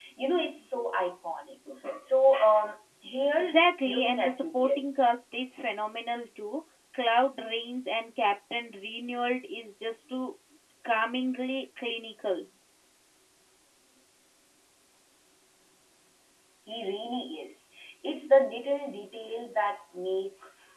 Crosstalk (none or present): present